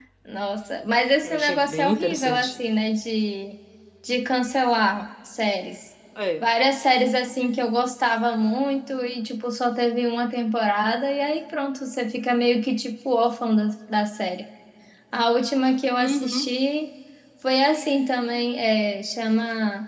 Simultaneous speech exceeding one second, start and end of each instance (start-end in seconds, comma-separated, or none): 1.2-2.5